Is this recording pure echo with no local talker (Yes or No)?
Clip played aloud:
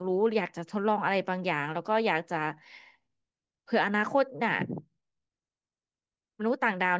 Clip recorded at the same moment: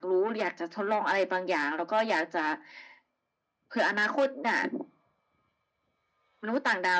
Yes